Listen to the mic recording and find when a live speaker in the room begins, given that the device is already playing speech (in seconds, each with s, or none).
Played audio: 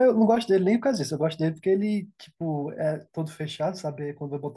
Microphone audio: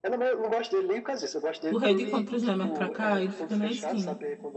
1.7 s